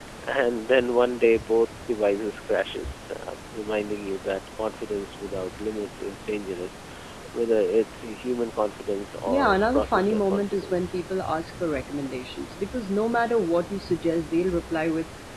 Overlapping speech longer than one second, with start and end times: 9.2-11.0

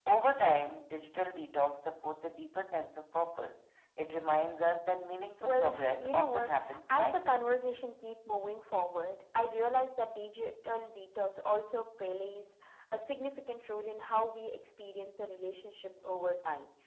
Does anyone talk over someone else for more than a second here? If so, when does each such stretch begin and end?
5.4-7.4

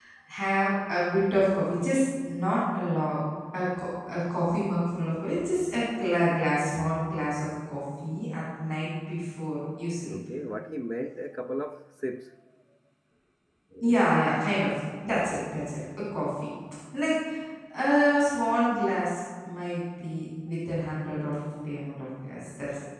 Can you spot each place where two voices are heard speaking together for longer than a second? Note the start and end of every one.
none

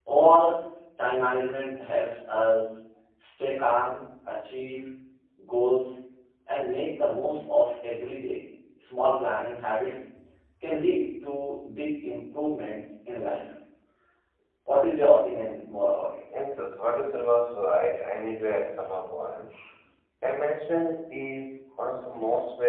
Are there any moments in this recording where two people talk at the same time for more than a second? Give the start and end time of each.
none

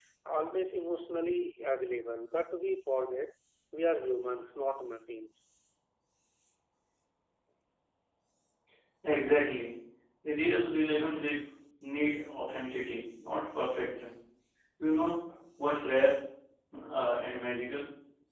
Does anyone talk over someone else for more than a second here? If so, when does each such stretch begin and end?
none

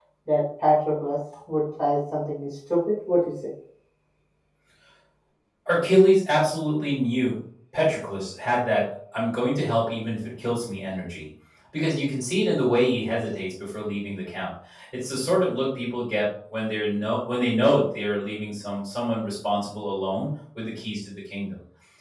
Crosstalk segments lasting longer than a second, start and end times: none

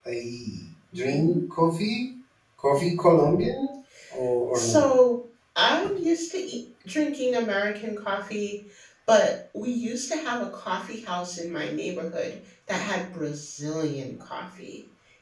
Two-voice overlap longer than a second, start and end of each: none

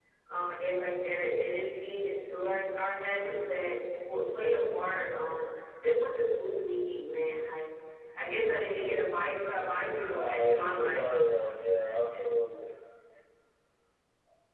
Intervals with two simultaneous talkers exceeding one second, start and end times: 10.0-11.2

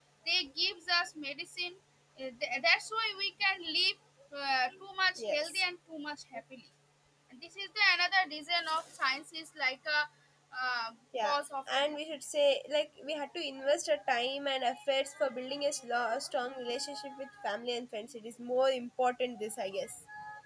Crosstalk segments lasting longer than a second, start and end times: none

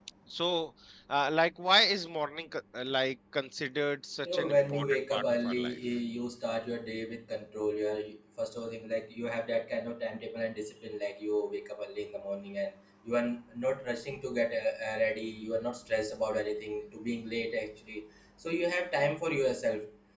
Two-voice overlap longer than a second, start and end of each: 4.2-5.8

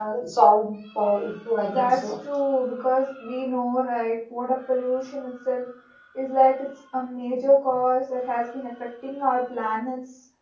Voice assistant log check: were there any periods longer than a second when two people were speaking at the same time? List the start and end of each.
none

